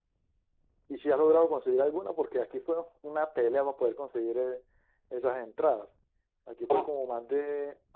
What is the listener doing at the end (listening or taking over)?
listening